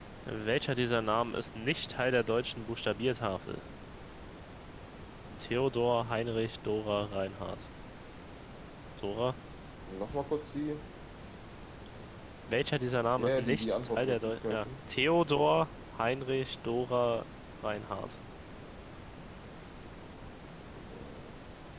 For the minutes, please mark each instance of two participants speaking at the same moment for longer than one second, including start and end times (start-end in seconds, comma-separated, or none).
13.2-14.7